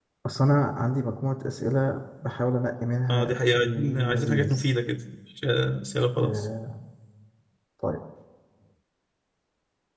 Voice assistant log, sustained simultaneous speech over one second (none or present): present